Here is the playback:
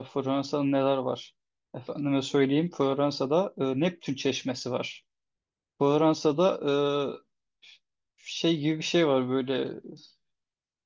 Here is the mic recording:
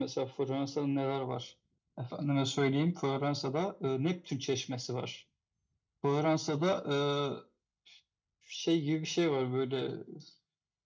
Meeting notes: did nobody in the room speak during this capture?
Yes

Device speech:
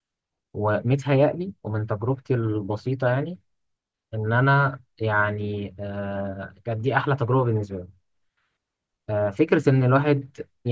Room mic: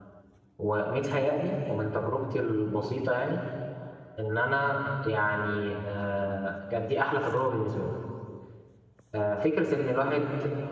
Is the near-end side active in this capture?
No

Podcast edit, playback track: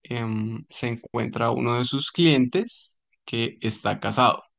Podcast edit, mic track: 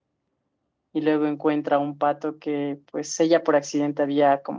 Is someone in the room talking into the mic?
Yes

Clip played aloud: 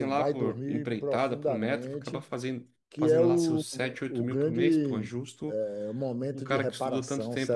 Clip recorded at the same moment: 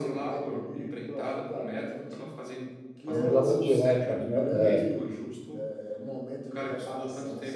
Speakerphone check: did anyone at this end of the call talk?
Yes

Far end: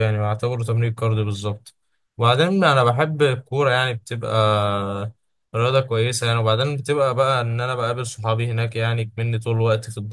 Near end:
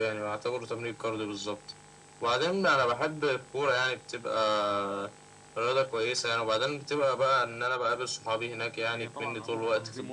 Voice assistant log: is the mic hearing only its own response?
No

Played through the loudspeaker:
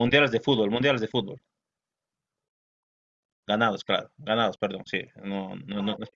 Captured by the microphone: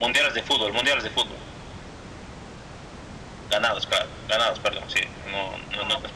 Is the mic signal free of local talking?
Yes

